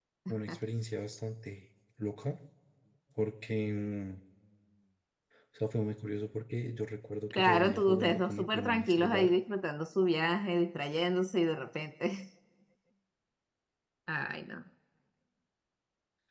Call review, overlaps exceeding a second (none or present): present